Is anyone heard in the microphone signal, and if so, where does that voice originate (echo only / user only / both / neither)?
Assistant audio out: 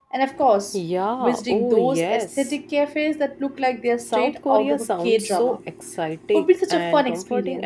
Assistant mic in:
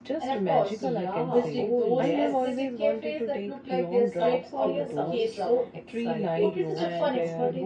both